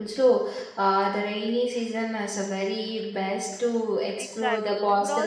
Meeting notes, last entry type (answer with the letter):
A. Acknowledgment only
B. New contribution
B